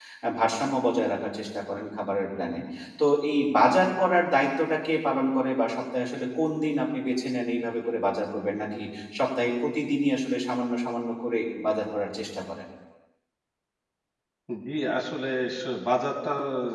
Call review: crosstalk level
none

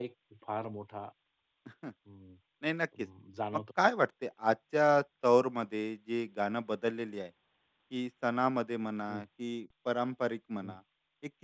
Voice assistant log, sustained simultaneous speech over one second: none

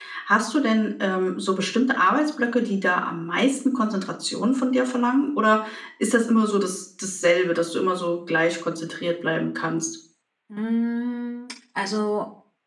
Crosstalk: none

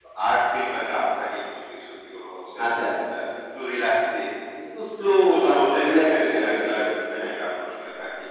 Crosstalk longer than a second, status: present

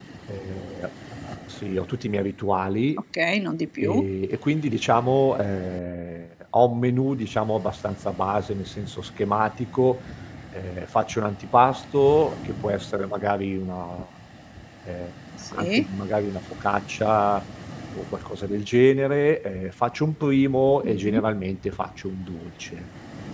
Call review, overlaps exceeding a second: none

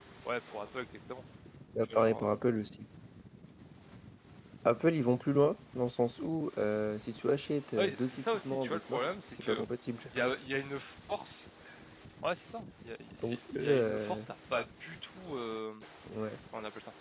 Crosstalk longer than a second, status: present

